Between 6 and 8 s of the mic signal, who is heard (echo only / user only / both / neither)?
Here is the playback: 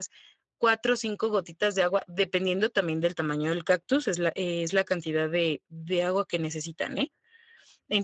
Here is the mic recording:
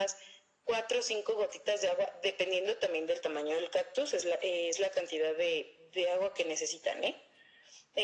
echo only